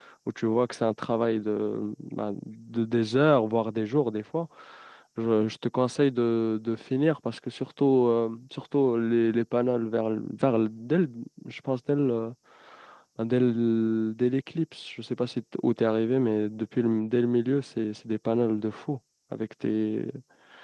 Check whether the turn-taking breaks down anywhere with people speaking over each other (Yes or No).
No